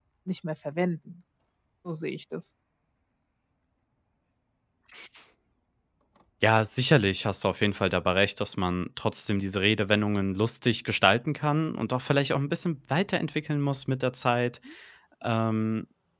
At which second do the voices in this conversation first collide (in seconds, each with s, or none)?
none